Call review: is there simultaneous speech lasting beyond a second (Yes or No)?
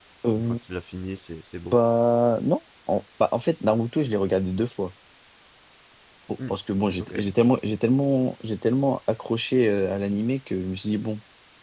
No